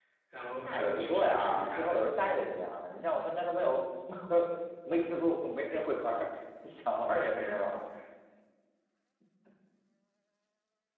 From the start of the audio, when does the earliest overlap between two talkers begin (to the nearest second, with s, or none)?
1 s